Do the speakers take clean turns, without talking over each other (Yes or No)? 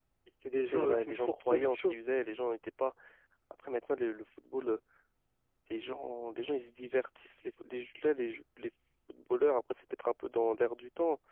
No